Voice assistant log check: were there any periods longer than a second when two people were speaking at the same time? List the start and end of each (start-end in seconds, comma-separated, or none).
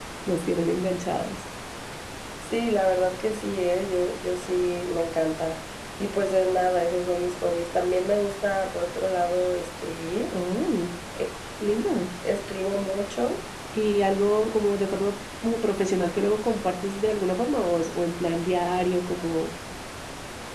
none